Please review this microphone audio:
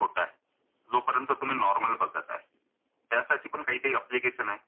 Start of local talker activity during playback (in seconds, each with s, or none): none